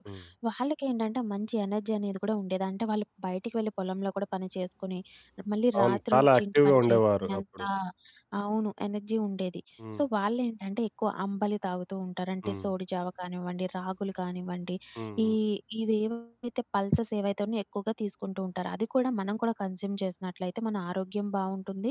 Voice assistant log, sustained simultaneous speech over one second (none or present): present